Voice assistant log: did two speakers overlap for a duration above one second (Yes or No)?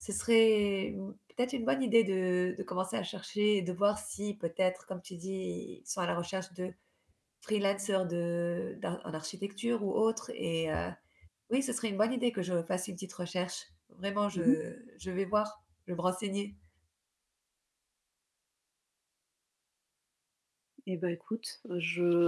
No